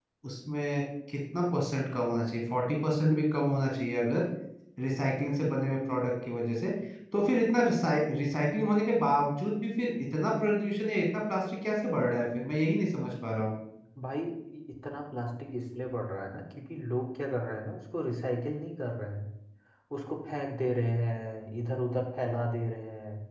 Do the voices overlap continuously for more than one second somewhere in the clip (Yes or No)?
No